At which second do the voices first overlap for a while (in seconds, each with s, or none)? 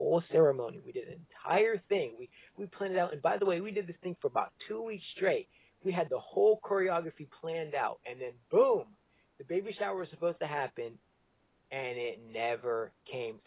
none